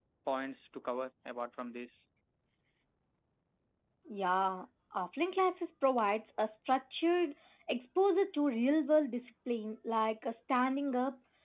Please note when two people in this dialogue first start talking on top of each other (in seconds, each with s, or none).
none